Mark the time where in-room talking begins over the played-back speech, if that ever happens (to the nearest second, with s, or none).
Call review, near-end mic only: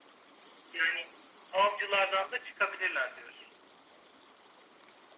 none